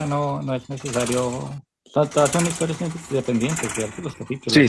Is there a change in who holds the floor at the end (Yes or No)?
Yes